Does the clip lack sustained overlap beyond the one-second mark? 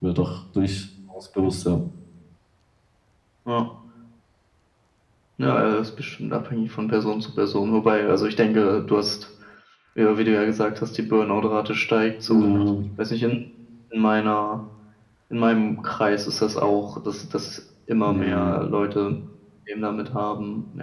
Yes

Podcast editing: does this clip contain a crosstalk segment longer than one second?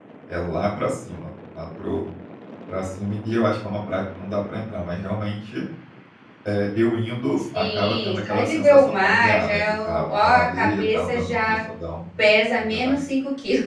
Yes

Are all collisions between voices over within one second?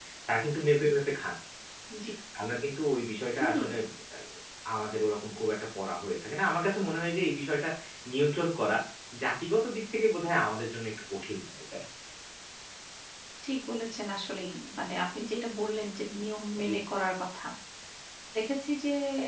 Yes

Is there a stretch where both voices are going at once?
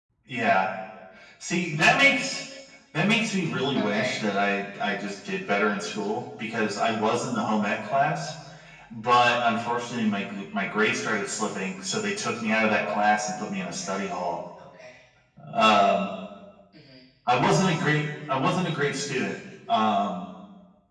Yes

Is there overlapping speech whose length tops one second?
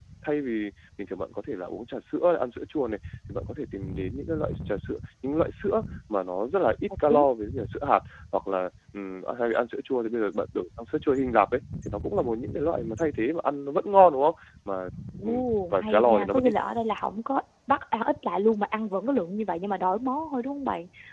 Yes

